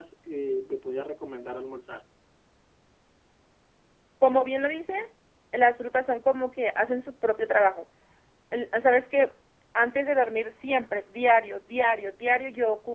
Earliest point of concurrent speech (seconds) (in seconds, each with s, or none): none